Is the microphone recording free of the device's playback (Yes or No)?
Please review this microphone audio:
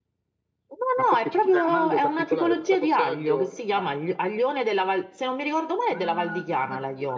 No